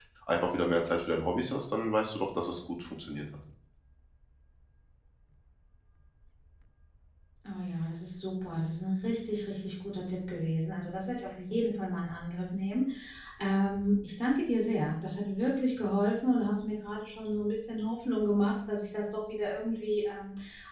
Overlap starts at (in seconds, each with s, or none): none